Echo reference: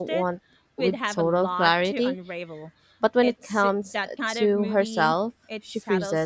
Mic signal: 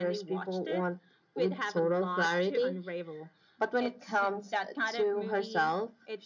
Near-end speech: none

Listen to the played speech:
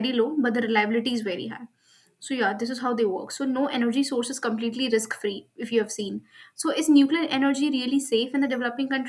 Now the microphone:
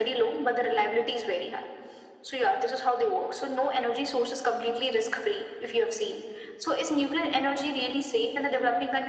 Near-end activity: none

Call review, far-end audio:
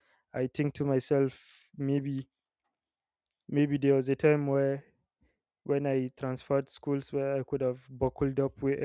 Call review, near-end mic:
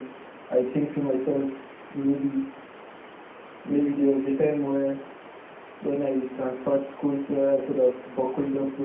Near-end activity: none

